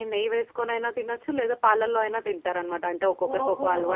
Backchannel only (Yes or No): No